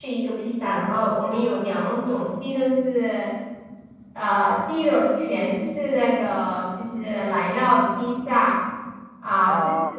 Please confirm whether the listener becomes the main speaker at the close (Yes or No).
No